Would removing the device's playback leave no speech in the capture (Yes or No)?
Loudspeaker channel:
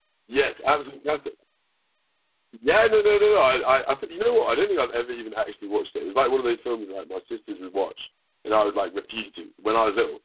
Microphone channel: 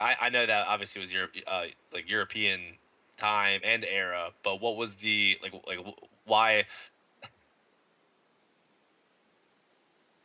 No